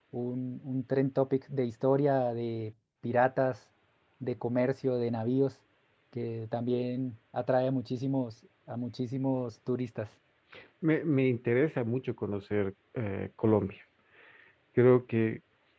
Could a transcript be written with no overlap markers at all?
Yes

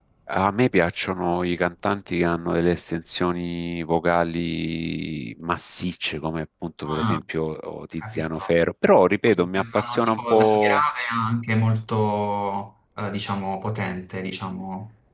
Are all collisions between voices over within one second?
No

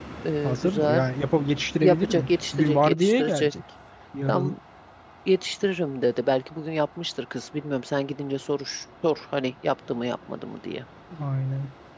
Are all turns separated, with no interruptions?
No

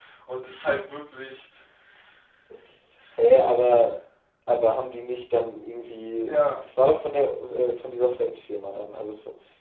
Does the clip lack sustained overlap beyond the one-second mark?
Yes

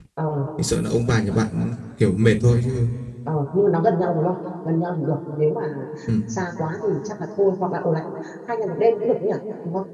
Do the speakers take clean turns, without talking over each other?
Yes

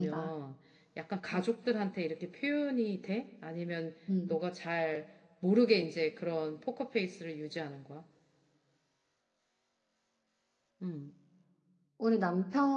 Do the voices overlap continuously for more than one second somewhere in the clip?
No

